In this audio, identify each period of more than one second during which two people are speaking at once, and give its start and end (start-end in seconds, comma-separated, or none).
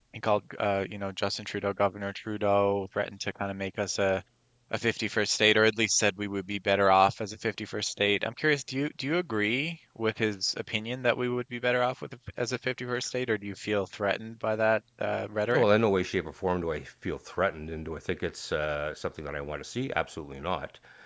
none